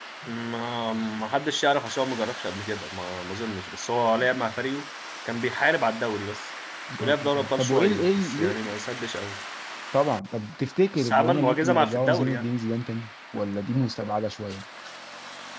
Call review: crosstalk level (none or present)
present